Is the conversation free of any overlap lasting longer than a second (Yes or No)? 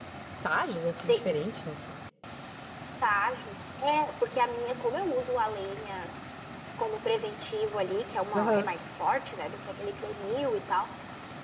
Yes